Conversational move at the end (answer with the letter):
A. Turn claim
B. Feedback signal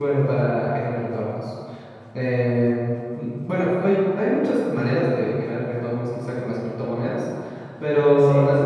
B